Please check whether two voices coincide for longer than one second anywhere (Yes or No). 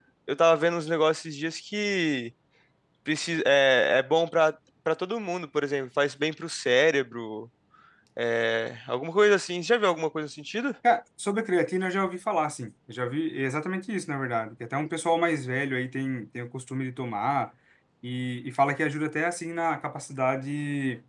No